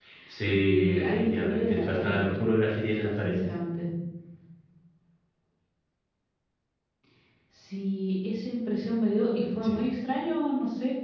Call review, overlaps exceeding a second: present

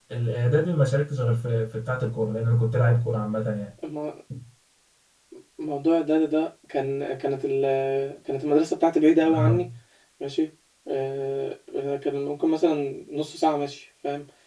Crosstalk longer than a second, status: none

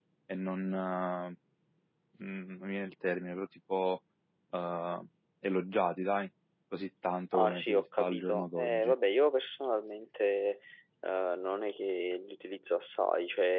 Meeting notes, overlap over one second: present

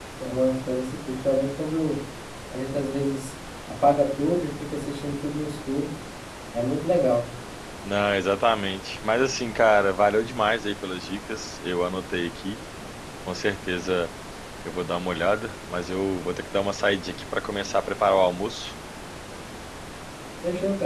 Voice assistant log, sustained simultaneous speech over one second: none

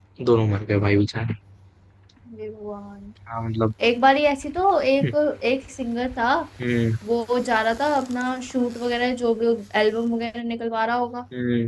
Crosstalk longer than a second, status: none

